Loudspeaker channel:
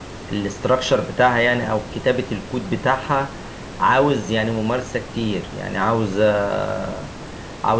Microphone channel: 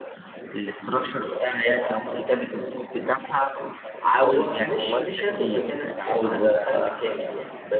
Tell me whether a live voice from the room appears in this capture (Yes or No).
Yes